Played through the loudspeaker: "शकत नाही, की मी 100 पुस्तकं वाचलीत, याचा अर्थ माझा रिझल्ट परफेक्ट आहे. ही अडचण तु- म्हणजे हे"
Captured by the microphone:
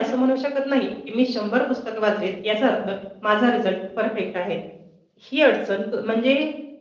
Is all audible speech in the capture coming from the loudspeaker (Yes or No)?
Yes